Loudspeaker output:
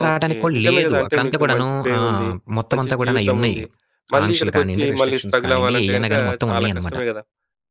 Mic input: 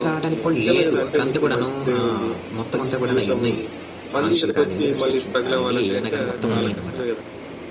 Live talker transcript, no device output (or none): హ్మ్.